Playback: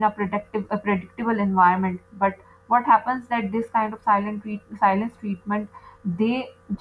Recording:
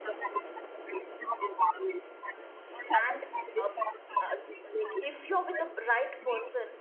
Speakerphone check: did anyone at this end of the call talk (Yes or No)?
Yes